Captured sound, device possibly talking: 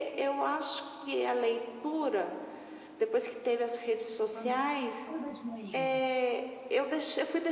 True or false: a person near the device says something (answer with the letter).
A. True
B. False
A